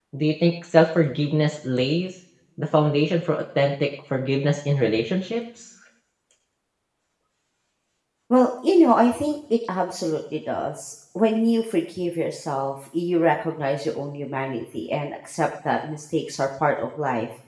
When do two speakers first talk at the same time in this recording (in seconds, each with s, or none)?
none